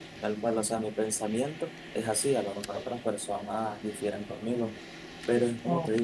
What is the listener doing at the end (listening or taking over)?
listening